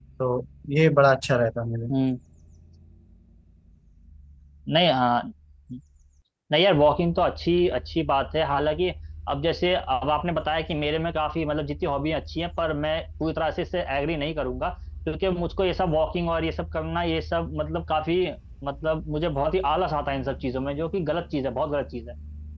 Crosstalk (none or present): none